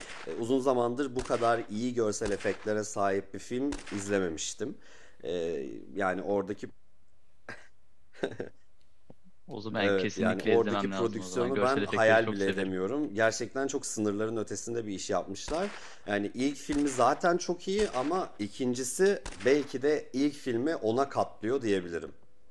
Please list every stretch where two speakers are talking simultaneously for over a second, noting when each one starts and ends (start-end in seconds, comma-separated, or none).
9.8-12.7